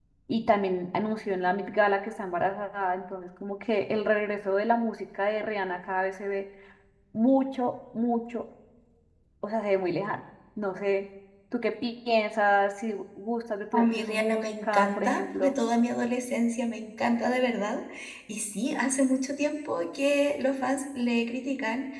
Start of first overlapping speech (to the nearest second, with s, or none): 14 s